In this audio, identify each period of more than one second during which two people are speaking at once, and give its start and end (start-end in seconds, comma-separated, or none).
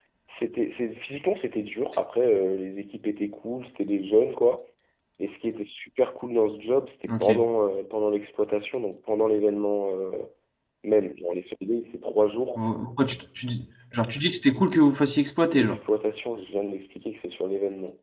none